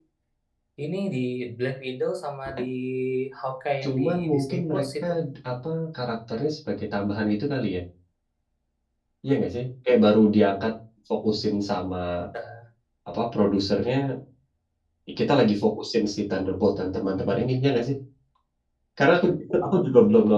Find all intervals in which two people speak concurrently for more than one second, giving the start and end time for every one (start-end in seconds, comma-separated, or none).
3.8-5.0